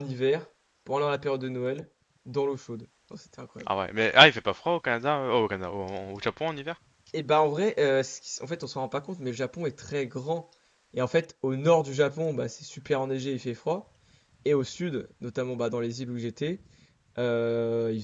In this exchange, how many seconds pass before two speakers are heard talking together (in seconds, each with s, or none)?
none